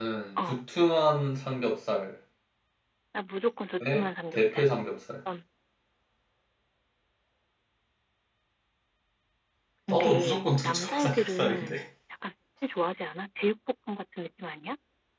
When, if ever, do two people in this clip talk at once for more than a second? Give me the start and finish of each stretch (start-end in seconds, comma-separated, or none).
9.9-11.8